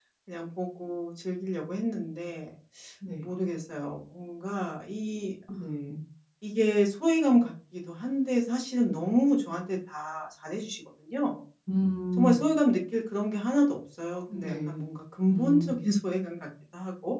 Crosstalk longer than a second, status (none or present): none